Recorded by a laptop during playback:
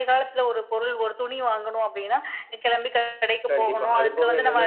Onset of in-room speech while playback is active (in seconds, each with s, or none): 3.5 s